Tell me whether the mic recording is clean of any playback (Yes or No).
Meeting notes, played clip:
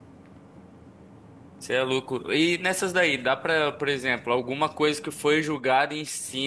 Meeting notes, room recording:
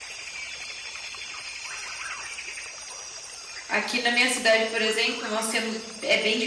Yes